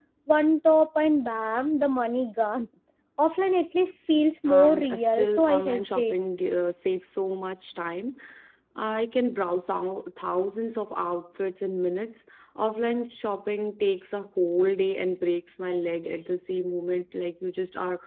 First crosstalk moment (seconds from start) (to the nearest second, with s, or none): 4 s